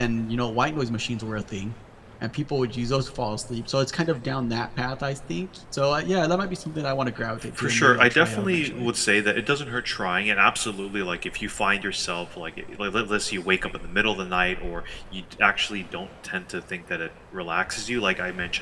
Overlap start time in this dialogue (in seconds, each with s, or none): 7.5 s